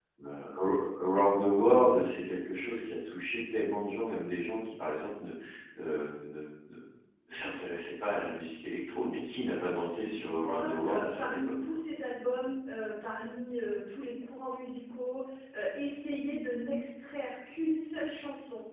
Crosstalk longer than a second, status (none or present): present